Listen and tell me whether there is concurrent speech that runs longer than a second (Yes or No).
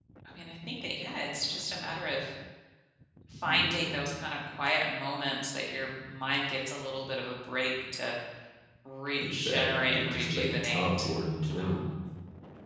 Yes